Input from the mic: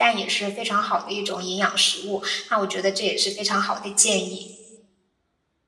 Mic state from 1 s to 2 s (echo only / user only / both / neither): user only